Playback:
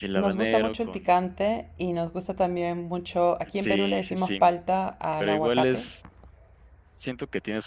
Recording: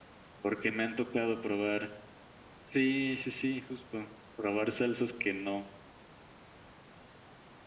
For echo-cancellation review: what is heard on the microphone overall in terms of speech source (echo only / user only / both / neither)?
user only